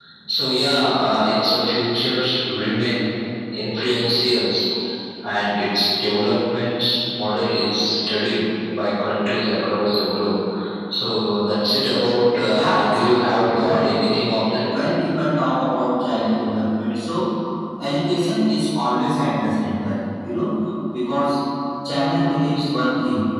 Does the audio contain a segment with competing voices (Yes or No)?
Yes